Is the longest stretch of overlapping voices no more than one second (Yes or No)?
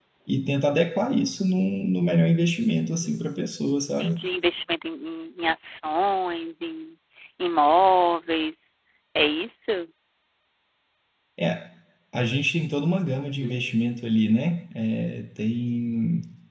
Yes